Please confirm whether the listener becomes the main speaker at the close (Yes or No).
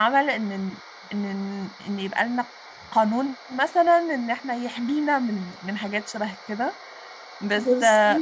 No